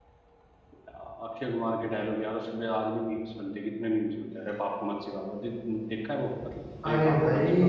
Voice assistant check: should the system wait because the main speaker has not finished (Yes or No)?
No